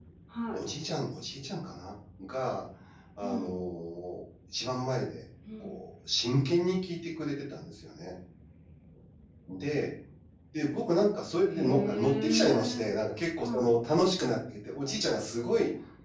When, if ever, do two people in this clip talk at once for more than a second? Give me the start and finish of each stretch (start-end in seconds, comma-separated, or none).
11.5-12.9